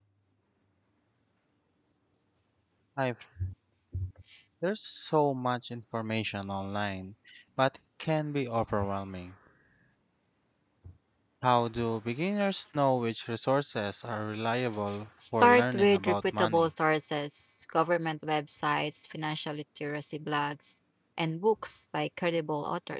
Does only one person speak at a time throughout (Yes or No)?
No